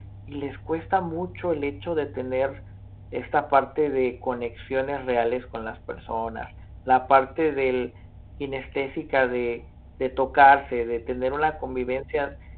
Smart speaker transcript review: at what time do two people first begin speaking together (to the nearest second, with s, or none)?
none